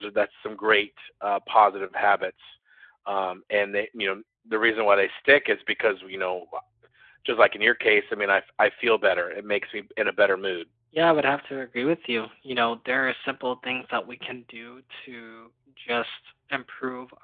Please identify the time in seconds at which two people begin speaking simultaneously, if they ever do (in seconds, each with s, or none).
none